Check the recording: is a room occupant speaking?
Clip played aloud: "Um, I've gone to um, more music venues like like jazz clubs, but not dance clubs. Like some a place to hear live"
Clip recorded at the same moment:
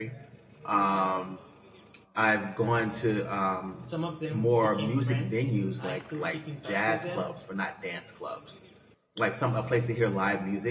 Yes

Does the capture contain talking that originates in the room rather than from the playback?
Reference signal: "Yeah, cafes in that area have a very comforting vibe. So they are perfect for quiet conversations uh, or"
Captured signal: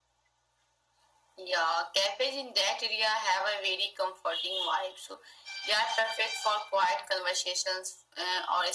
No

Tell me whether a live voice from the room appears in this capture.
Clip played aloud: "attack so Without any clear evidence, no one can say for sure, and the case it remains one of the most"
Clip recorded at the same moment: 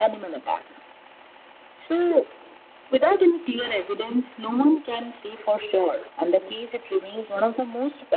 No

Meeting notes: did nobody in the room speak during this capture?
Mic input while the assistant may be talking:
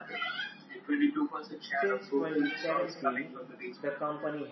No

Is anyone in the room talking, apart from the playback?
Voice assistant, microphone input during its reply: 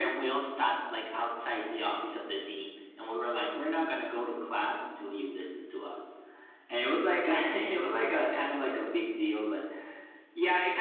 No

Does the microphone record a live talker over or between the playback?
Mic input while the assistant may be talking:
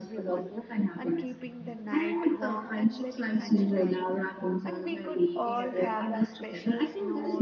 Yes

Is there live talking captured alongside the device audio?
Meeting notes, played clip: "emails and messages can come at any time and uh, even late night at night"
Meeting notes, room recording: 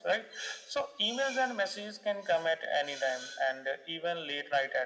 No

